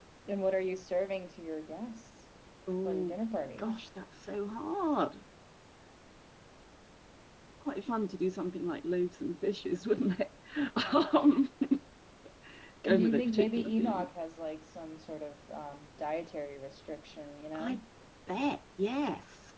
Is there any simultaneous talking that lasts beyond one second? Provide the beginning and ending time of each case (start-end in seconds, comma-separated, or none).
12.8-14.1